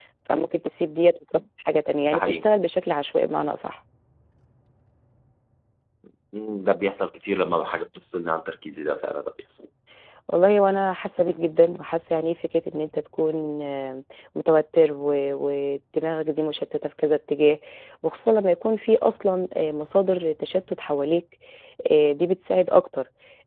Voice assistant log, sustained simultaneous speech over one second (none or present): none